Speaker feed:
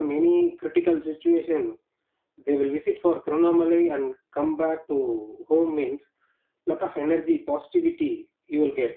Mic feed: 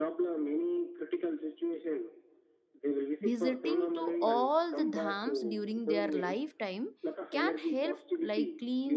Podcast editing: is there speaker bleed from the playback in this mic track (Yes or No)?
Yes